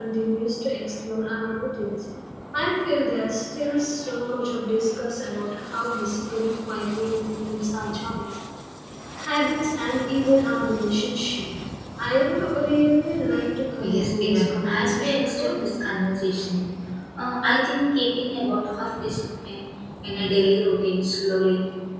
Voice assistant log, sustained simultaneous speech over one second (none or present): present